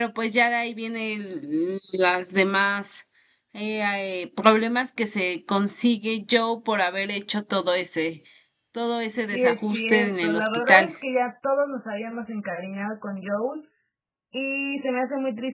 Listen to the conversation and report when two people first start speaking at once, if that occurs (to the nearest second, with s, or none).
9 s